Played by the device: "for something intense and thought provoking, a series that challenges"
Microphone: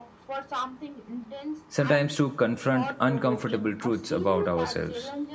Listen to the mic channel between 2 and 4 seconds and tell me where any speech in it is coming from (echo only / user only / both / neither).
both